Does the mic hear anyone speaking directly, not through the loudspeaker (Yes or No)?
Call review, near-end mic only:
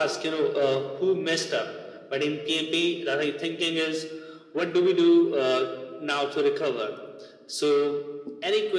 No